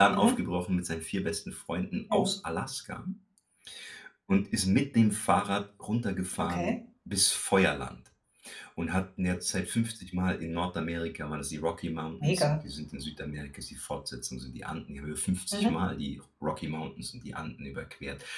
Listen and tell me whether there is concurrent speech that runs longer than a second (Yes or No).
No